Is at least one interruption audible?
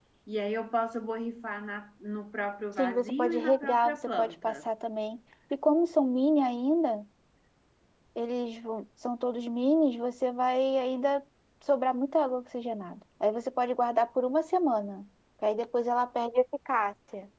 Yes, from 2.8 s

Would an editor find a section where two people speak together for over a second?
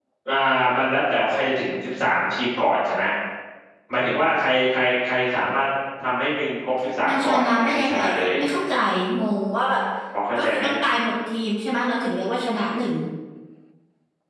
Yes, from 7.1 s

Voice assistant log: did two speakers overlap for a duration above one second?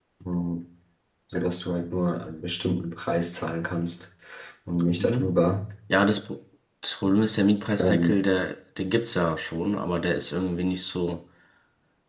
No

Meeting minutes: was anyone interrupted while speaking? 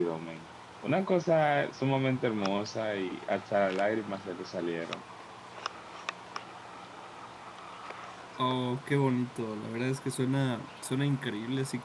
No

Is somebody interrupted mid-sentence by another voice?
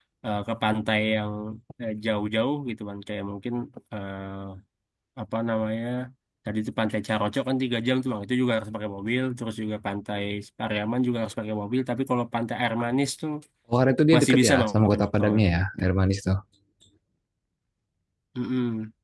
Yes, from 14.1 s

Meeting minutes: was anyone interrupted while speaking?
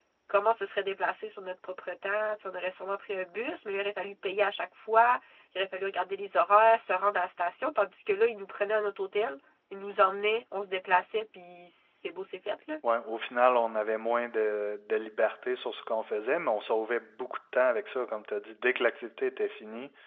No

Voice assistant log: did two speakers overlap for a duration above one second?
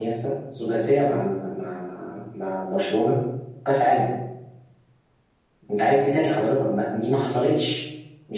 No

